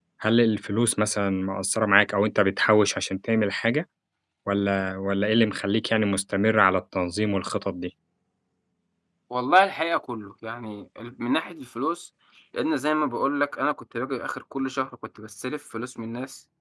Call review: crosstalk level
none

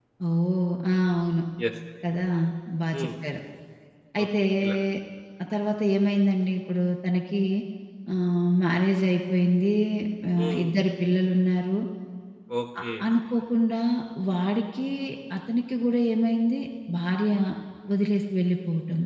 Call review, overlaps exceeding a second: none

